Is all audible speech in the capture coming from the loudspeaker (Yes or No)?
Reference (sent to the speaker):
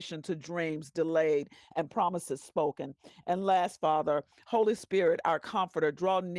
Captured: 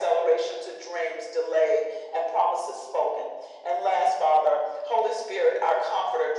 Yes